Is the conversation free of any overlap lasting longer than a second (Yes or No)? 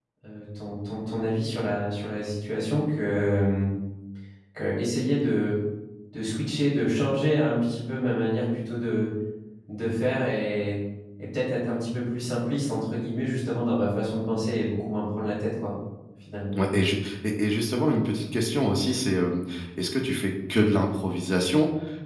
Yes